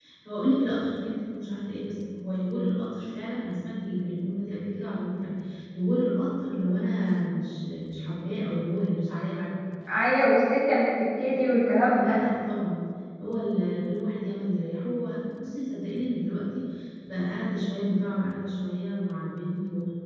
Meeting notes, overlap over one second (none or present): none